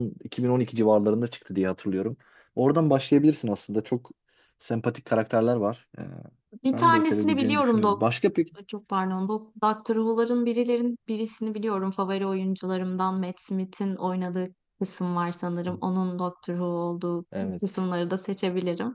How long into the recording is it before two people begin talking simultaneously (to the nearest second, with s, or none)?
7 s